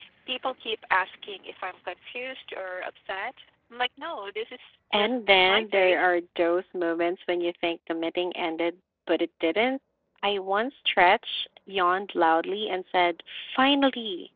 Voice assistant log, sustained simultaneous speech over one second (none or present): present